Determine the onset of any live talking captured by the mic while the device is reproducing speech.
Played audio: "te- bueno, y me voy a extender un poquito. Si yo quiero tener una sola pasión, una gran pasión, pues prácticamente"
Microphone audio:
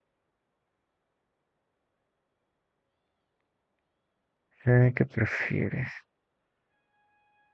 4.7 s

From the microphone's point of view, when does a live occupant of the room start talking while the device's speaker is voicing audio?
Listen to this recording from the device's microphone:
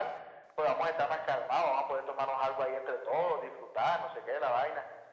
none

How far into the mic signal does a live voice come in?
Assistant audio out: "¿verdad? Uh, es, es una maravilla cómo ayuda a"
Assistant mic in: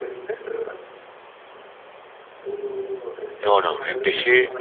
3.4 s

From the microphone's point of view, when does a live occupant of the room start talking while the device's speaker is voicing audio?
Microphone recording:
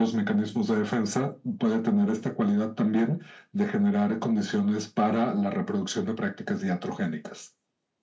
none

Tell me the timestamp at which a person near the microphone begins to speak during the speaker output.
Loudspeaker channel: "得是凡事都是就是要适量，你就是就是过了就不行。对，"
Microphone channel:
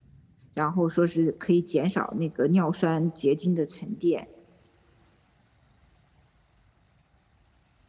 0.5 s

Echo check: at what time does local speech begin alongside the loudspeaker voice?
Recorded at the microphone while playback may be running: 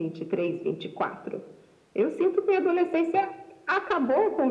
none

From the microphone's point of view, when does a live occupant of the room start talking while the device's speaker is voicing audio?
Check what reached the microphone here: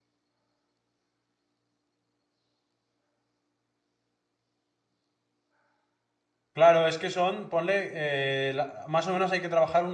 6.5 s

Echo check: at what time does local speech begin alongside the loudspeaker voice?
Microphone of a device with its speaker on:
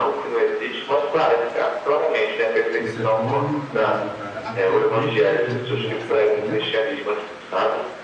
2.7 s

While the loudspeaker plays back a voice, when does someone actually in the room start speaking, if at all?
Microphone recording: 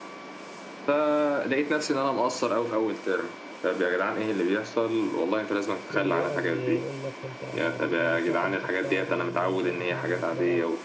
5.9 s

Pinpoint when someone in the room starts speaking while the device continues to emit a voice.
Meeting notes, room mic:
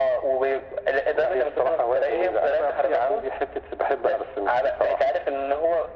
none

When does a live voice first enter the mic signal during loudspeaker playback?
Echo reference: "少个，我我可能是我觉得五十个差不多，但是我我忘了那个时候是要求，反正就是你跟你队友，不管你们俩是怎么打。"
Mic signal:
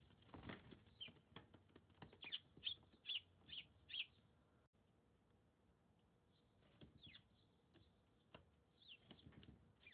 none

